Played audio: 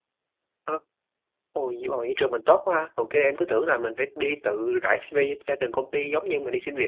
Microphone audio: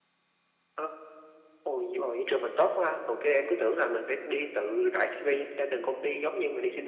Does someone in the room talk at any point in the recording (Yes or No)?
No